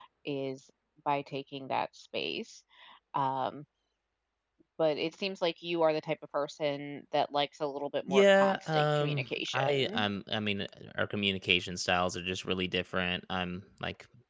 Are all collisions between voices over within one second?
No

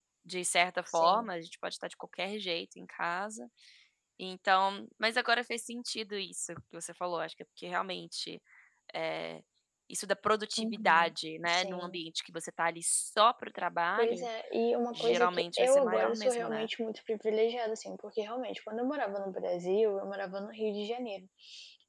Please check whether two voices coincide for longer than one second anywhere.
Yes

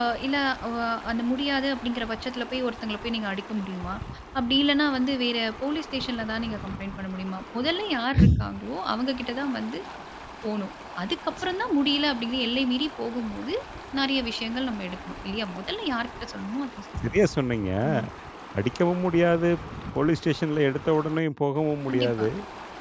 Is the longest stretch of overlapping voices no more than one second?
Yes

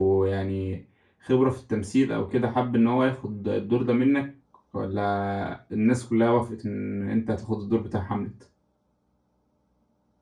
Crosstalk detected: No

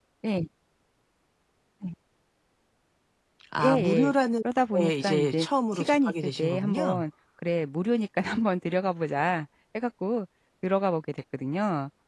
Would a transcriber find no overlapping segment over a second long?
No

